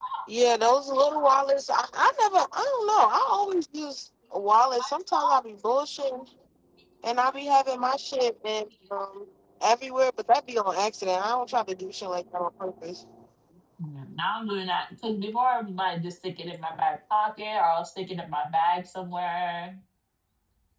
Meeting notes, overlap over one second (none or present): none